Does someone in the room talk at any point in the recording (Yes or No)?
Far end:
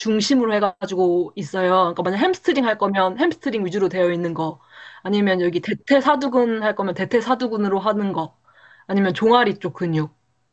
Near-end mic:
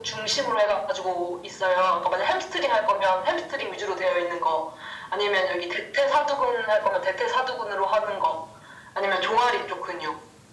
No